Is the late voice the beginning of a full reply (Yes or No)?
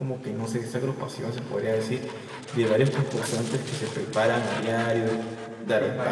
No